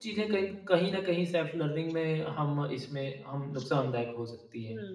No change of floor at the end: No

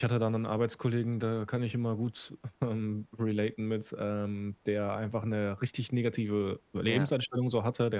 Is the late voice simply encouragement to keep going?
Yes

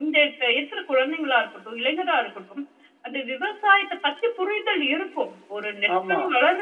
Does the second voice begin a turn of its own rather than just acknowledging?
No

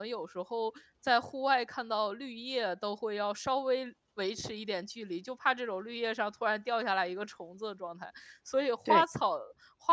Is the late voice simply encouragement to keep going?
Yes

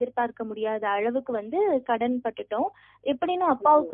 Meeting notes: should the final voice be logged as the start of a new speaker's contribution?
No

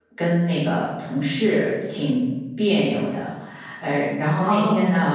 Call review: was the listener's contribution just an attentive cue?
Yes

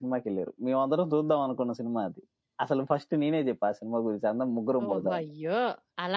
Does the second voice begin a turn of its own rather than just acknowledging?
Yes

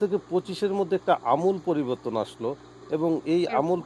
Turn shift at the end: No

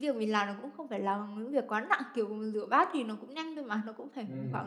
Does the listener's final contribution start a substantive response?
No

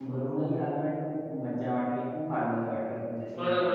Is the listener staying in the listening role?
No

